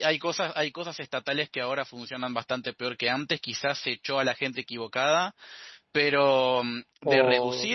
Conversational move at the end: listening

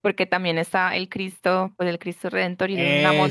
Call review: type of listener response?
listening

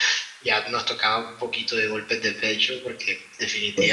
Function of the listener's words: listening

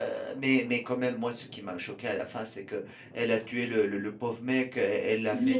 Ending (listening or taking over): listening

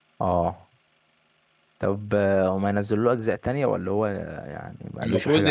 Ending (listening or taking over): taking over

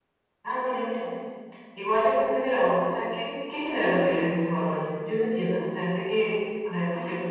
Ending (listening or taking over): listening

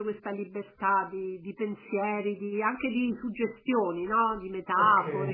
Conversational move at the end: taking over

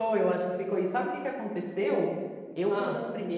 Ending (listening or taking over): listening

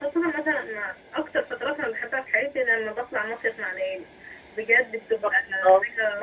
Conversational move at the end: listening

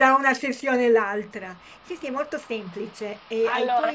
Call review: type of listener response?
listening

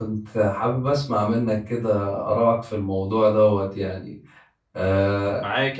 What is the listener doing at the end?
taking over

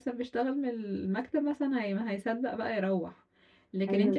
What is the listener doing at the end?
listening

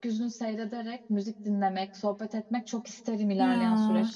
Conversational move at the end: taking over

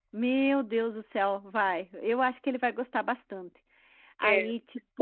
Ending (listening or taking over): taking over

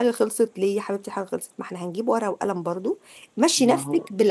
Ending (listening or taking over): listening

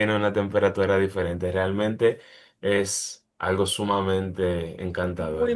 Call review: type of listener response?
taking over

